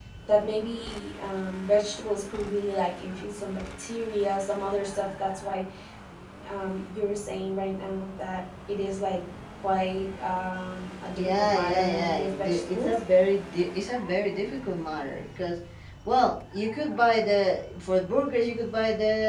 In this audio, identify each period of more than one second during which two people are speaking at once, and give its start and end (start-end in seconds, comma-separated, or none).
11.2-13.0